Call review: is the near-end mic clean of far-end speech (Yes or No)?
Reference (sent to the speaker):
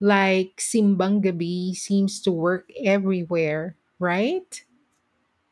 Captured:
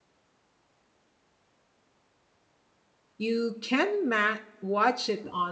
Yes